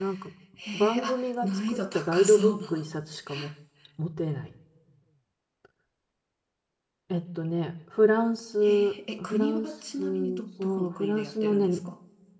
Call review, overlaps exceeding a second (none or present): present